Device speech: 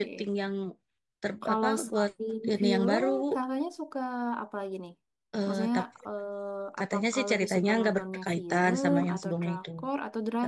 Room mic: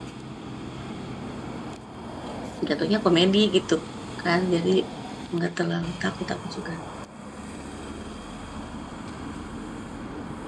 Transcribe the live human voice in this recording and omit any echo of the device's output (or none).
jatuhnya komedi gitu kan. Jadi nggak terlalu takut aku juga.